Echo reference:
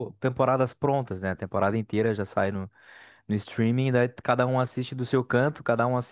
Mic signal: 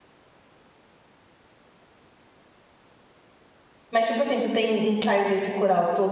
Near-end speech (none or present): present